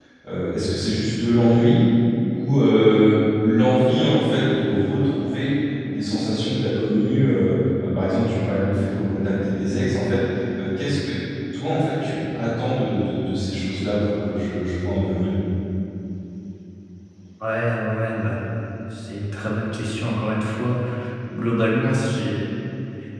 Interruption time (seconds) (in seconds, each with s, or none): none